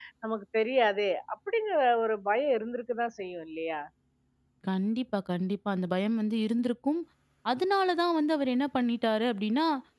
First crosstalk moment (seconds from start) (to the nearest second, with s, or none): none